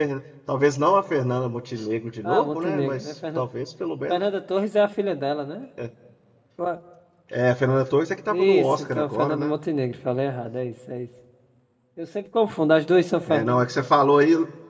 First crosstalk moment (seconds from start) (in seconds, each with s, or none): 2.2 s